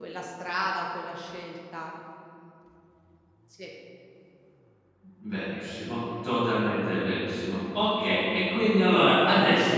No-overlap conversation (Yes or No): Yes